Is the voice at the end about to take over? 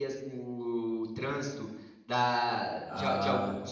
No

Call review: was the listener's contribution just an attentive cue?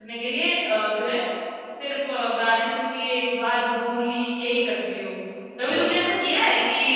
Yes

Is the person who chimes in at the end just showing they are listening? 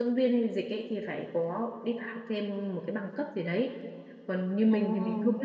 Yes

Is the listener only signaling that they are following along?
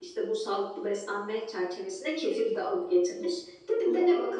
Yes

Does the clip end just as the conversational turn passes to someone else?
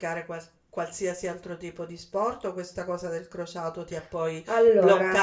No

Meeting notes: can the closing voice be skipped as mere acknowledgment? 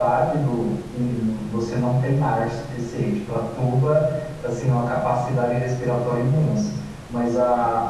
Yes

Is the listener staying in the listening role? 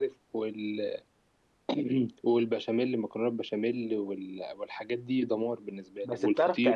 No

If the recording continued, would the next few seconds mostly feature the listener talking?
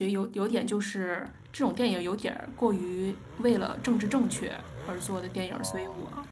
No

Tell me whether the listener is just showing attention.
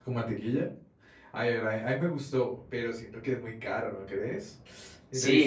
No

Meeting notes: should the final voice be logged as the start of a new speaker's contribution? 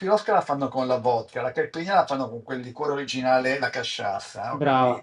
Yes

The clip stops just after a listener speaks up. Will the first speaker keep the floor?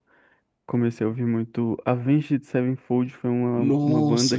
No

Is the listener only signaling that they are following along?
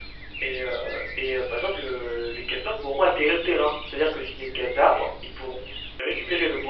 No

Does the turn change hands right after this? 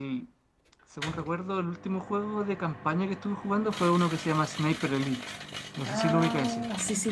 Yes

